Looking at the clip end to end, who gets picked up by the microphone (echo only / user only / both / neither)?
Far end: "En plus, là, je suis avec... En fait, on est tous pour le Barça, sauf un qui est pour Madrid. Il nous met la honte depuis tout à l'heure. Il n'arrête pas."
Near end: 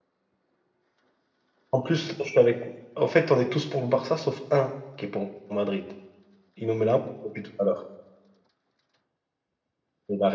echo only